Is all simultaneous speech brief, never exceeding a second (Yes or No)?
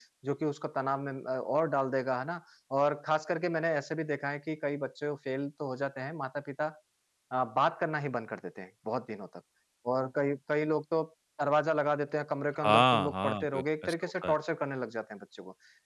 No